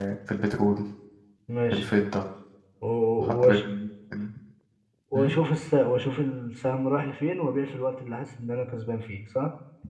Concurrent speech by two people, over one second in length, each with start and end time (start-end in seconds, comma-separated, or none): none